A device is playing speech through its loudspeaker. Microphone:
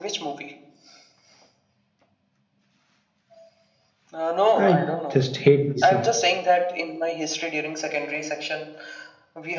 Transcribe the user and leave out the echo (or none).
I just hate these of